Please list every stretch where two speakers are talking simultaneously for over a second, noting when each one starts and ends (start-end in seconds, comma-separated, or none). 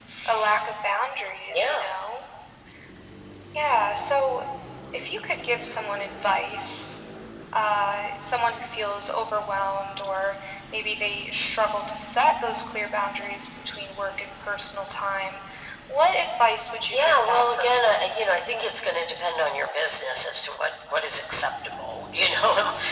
16.9-18.1